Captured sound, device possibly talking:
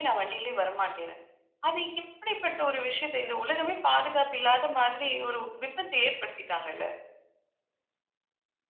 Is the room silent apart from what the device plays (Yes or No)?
Yes